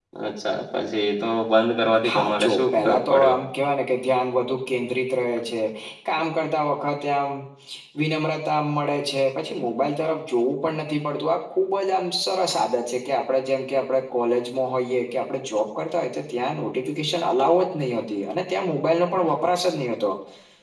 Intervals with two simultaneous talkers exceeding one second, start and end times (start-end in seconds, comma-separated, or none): 2.1-3.4